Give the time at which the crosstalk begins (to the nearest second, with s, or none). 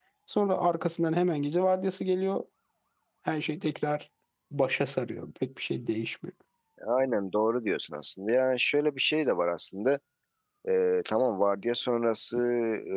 none